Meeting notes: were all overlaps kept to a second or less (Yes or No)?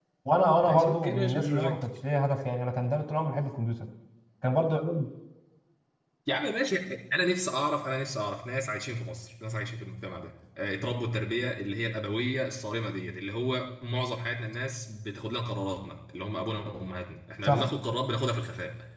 No